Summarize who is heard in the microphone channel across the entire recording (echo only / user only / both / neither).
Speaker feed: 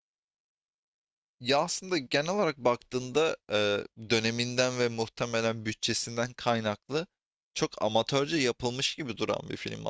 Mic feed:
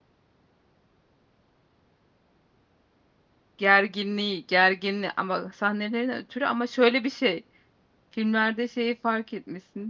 user only